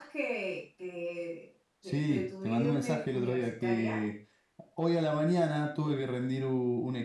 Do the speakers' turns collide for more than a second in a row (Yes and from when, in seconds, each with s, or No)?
Yes, from 1.8 s